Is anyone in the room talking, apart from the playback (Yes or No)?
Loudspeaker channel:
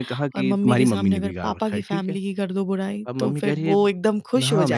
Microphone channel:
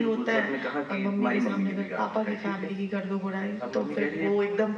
No